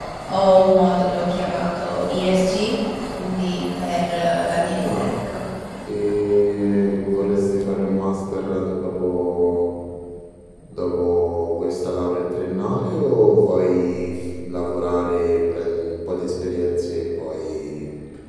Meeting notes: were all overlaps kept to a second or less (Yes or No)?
Yes